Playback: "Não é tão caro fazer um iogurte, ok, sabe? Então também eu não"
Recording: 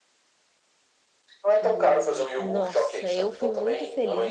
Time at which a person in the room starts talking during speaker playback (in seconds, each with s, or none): 1.6 s